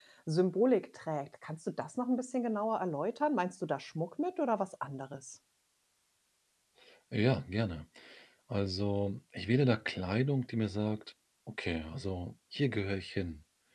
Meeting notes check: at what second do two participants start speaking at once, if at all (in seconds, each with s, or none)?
none